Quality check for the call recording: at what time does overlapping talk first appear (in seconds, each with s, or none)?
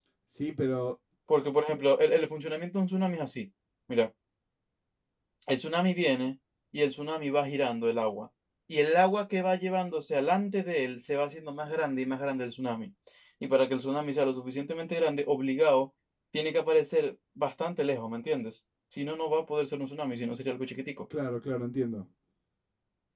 none